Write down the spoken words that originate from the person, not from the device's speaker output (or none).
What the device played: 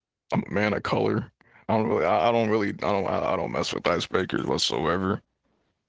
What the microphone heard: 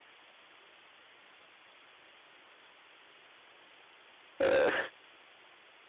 Yeah,